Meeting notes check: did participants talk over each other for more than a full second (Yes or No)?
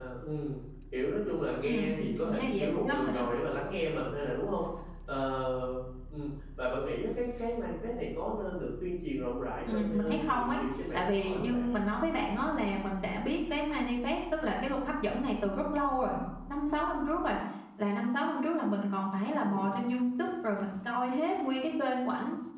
Yes